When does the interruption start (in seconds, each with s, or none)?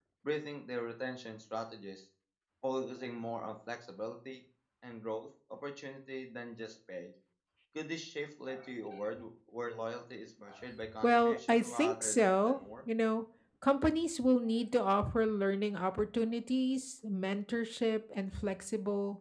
10.8 s